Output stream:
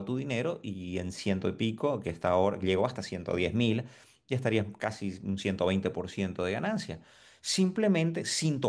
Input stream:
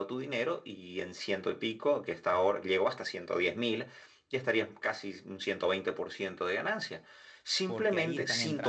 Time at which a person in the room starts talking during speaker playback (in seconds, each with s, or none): 7.6 s